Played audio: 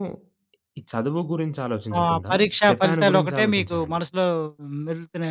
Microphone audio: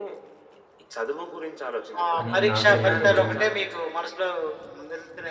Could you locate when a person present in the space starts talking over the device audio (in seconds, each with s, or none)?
2.2 s